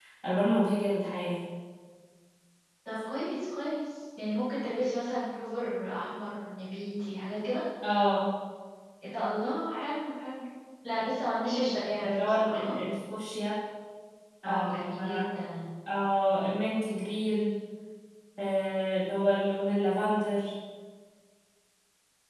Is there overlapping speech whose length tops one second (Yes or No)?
Yes